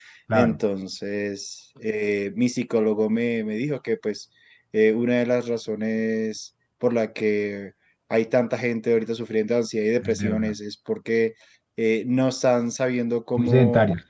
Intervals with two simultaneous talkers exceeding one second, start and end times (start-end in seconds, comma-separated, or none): none